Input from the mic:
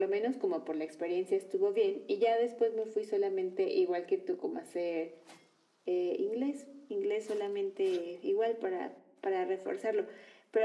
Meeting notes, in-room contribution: none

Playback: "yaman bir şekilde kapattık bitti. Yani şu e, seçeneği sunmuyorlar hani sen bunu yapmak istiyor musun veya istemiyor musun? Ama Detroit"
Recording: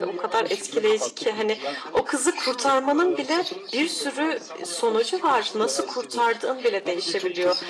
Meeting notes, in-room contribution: present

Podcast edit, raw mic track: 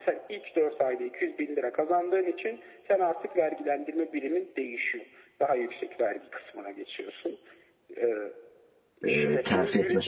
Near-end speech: present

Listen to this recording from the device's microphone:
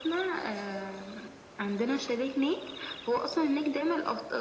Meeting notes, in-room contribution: none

